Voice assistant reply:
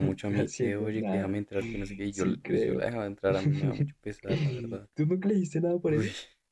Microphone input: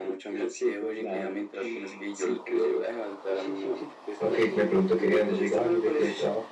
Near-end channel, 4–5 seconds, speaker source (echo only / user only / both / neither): both